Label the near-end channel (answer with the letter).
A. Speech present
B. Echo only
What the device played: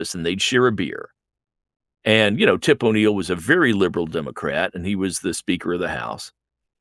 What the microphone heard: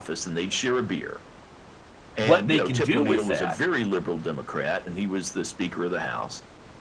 A